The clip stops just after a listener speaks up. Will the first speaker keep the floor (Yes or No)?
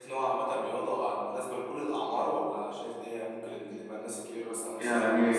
No